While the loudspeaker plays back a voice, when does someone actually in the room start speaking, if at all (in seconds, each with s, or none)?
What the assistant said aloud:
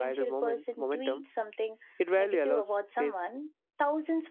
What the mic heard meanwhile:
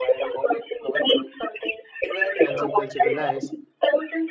2.4 s